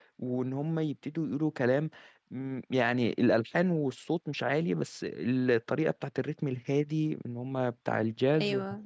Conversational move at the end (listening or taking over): listening